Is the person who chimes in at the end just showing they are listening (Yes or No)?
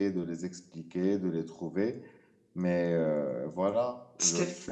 Yes